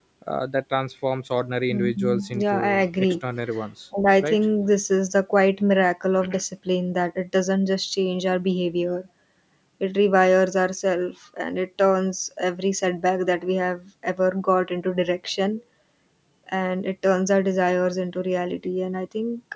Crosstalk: present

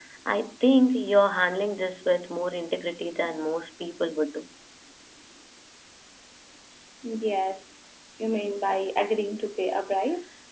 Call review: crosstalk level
none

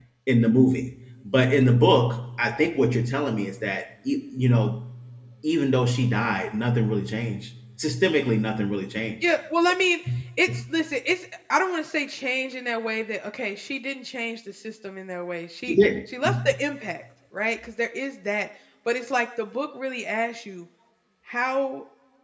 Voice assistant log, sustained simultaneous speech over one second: none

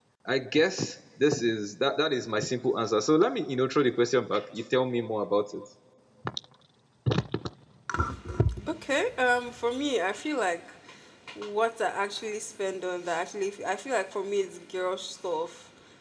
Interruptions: none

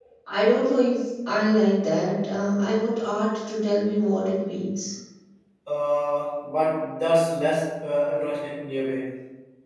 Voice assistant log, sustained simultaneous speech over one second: none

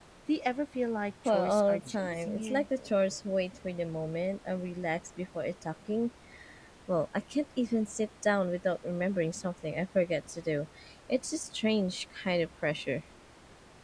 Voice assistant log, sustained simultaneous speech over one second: present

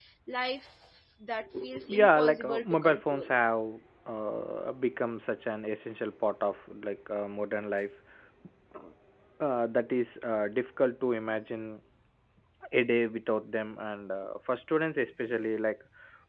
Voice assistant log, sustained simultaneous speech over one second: present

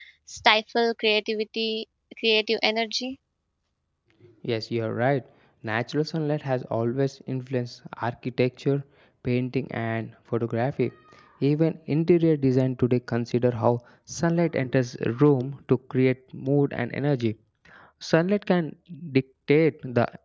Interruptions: none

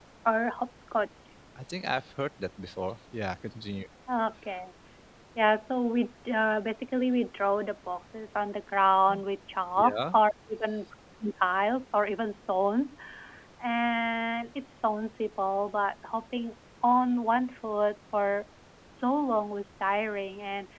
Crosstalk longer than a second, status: none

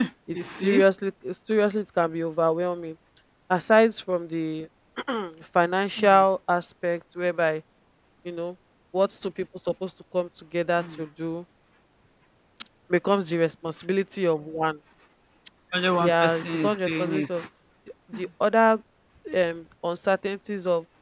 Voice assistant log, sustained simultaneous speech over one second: present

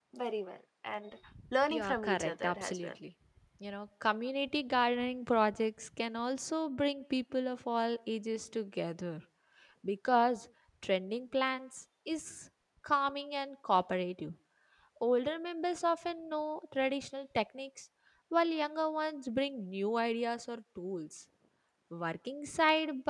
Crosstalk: present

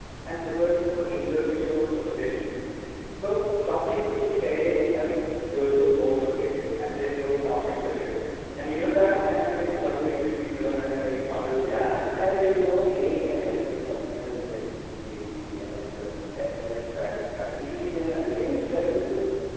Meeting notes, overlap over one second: none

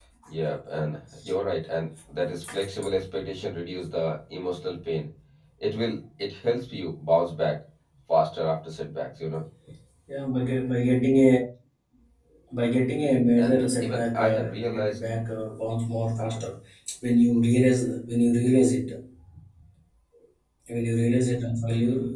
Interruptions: present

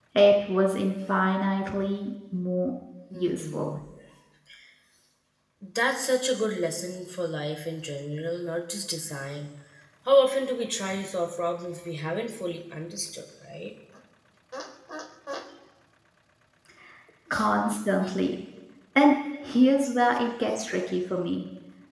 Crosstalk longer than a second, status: none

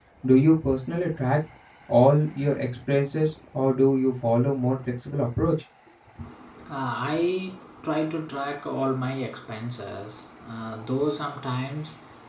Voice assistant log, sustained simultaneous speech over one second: none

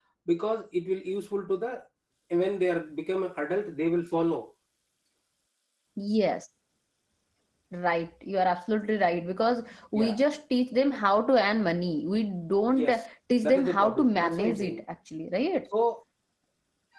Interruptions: present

